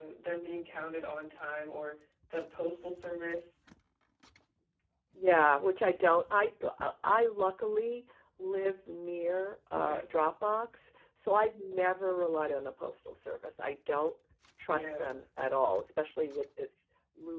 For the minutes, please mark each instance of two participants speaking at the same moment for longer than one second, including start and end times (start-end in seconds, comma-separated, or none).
none